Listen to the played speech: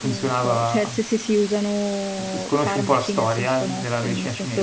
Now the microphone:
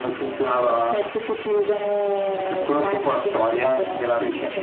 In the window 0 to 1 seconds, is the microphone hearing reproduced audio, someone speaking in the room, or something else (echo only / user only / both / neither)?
echo only